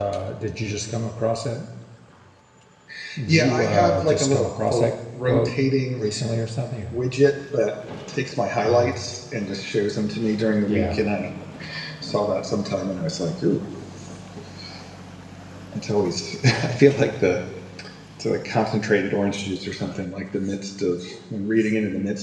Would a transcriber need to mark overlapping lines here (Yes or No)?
Yes